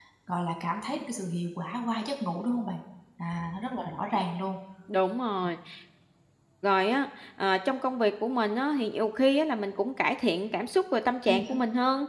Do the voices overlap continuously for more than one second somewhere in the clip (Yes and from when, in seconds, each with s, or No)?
No